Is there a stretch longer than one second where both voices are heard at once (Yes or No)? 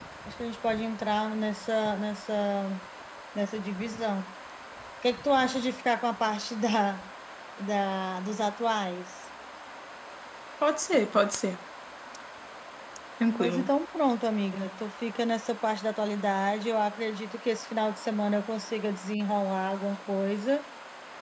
No